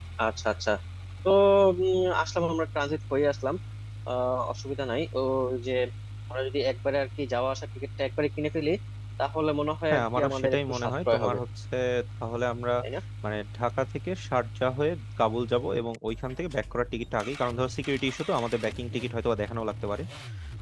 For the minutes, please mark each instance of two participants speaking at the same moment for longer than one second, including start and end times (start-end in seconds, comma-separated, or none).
9.9-11.4